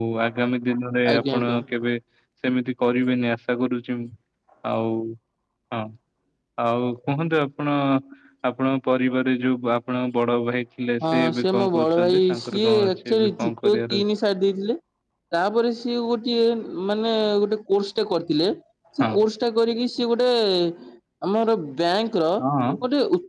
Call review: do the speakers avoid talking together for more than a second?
No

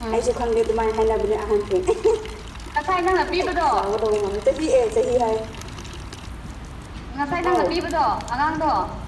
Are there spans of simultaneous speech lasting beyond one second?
No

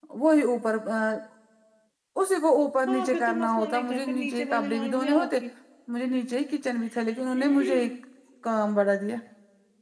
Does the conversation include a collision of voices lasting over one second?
Yes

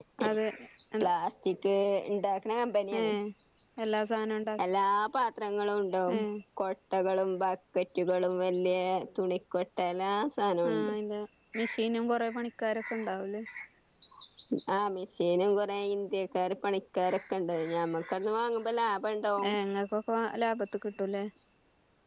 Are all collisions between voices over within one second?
Yes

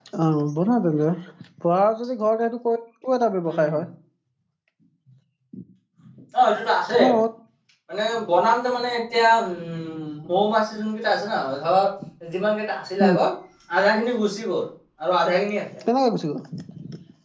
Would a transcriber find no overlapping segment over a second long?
Yes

